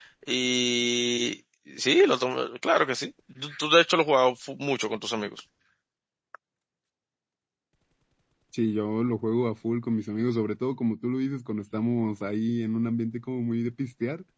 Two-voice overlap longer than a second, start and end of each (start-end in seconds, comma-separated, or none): none